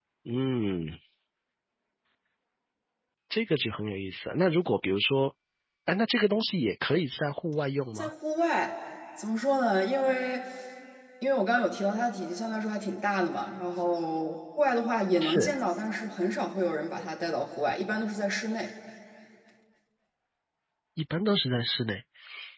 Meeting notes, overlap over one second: none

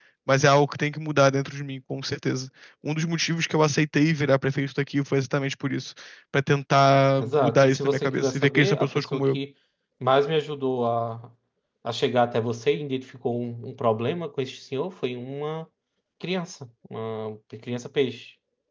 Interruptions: present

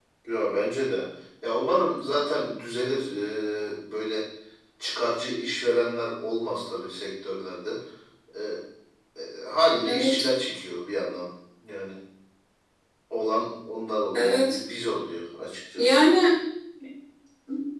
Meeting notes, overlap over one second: none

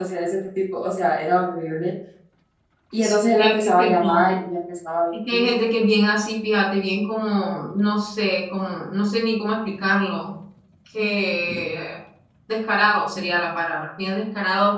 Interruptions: present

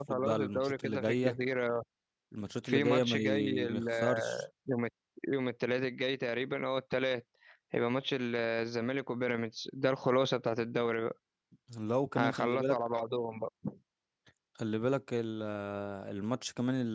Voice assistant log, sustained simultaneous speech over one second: present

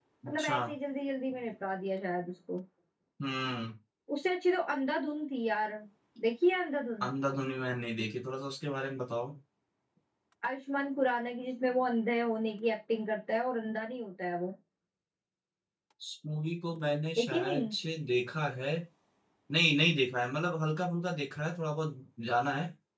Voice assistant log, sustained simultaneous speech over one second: none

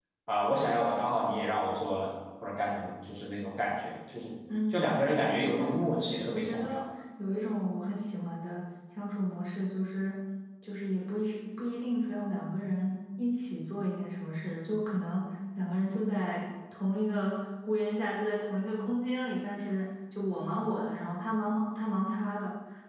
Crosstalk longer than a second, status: present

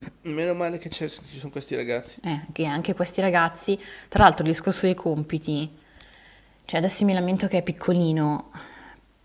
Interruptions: none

